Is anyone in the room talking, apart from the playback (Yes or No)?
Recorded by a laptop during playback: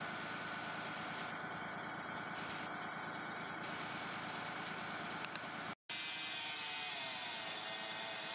No